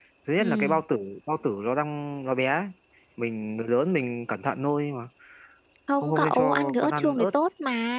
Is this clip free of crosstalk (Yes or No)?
No